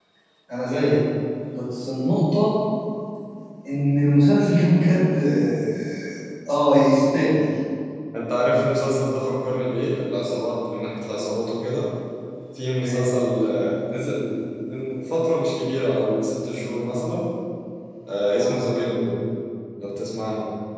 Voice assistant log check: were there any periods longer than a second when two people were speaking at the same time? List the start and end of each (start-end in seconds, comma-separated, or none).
none